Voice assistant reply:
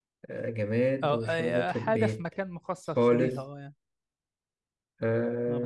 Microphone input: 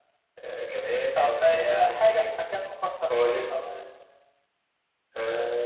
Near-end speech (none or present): none